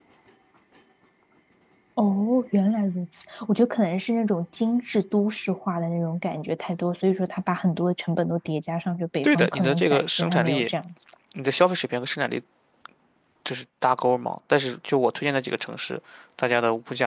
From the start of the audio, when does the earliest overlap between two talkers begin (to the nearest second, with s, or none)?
9 s